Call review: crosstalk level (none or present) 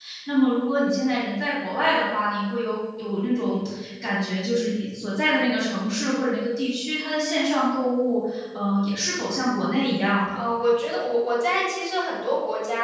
none